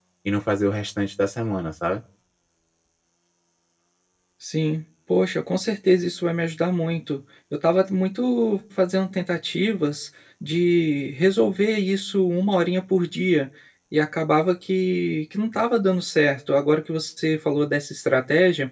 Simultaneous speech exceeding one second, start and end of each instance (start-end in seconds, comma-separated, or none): none